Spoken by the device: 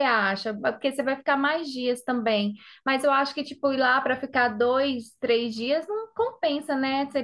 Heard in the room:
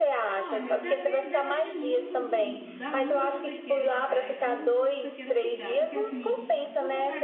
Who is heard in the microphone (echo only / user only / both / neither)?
both